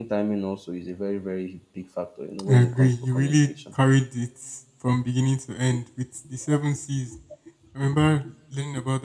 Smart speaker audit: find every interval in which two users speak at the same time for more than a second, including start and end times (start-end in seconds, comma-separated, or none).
2.5-3.7